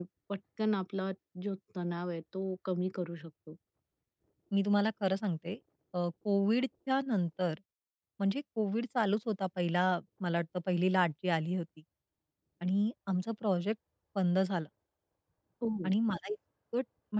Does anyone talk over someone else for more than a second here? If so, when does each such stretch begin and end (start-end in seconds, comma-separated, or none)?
none